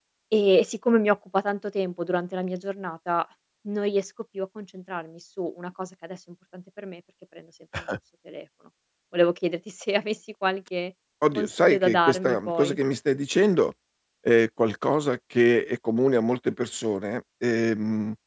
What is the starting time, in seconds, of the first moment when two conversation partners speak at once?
11.2 s

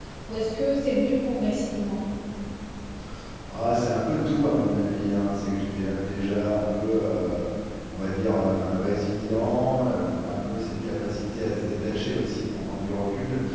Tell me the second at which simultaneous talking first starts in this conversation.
none

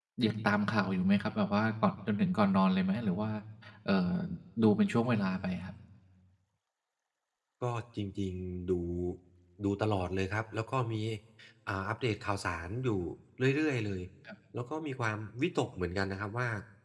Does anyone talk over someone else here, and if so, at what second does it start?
none

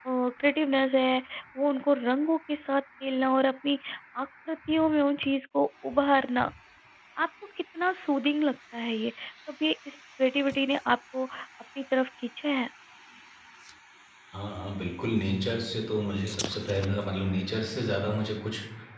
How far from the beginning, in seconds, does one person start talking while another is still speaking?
none

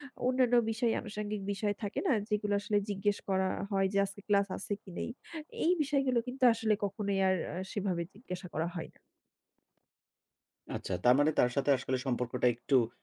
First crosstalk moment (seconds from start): none

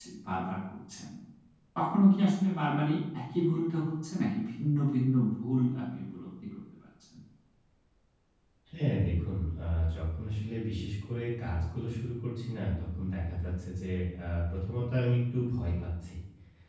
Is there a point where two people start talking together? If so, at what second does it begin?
none

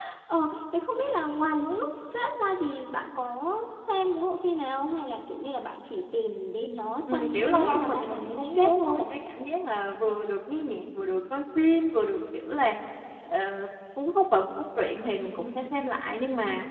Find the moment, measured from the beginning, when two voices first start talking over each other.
7.1 s

